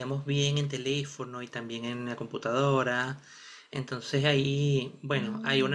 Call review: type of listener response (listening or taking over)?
listening